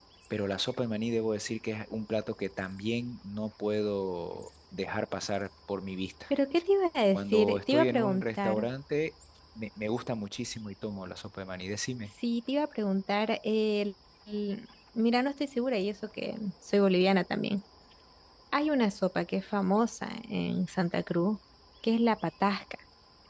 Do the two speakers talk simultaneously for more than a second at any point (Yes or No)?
Yes